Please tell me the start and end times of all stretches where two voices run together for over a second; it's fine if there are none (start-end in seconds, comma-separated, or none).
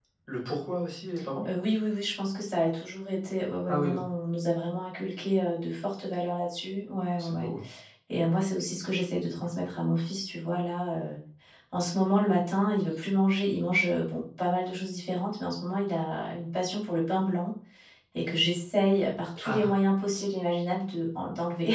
none